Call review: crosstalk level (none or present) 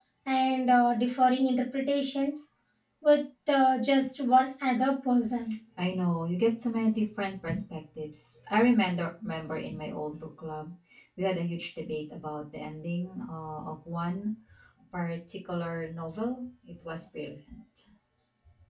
none